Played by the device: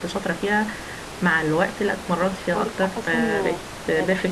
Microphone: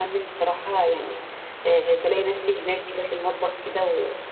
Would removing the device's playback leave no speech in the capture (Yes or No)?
No